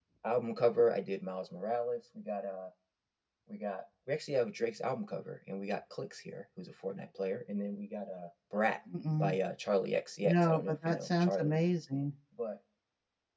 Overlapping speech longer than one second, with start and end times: 10.2-11.6

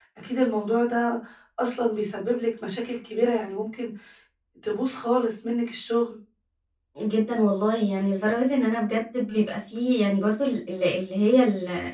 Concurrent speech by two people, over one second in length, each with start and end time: none

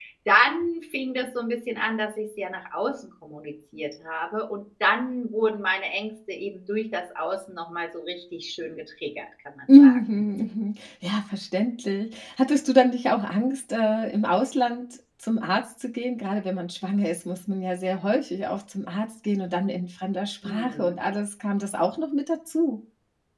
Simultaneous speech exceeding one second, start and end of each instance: none

